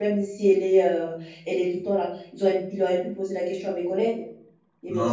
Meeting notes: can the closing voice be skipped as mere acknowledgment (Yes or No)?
No